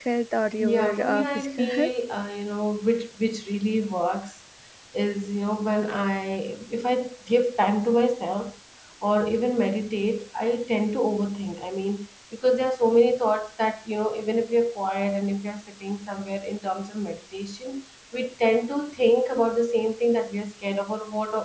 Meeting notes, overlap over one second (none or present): present